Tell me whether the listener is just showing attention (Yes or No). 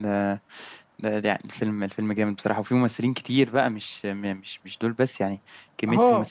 No